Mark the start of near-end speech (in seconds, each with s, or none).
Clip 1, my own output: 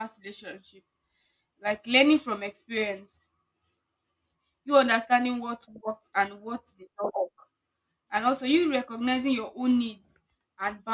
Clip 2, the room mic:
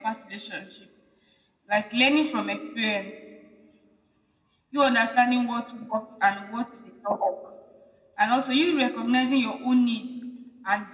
none